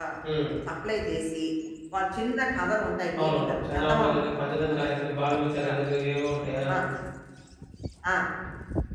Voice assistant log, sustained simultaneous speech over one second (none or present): present